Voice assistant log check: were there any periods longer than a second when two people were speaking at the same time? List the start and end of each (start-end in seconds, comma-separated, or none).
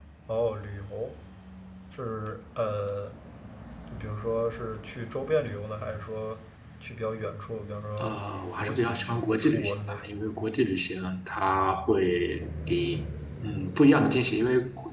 8.6-10.1